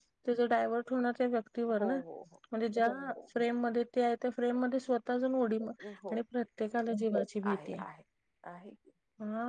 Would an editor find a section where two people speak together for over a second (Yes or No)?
No